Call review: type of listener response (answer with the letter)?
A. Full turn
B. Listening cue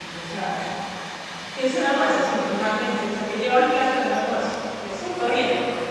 A